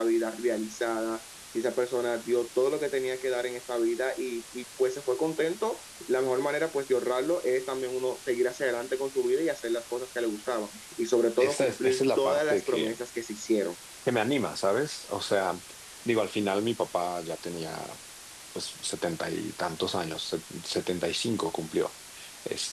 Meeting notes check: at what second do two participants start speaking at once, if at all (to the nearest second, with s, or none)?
11 s